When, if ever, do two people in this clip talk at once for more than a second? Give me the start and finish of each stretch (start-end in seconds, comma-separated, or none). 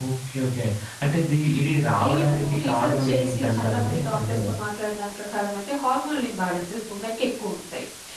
2.0-4.4